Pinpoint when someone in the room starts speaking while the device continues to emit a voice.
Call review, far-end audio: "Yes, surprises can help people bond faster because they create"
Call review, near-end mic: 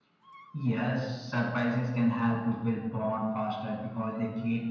none

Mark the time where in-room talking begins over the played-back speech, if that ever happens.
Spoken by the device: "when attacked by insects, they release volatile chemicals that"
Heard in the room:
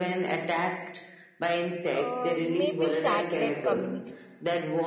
1.9 s

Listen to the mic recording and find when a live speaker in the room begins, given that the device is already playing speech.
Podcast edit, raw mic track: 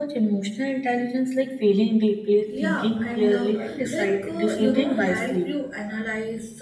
2.4 s

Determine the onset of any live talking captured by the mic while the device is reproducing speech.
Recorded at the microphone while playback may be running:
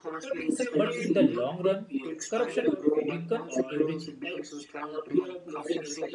0.7 s

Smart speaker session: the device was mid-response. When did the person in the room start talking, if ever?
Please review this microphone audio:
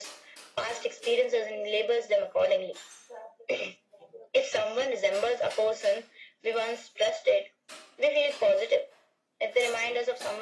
none

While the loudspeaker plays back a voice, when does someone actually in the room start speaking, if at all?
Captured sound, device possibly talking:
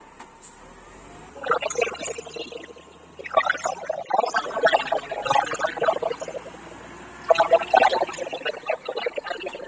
none

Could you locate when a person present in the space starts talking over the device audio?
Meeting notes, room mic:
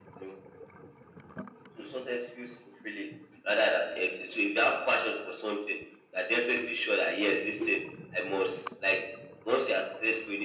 none

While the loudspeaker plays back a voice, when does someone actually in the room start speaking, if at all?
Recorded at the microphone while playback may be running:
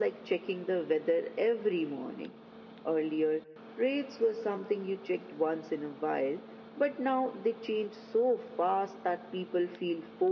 none

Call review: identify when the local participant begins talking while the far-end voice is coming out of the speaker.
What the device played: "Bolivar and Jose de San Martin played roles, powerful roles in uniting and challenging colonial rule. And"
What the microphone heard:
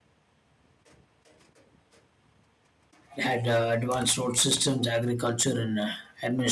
3.2 s

